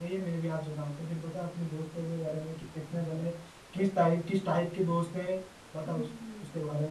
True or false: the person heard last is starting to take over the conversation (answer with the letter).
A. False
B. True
B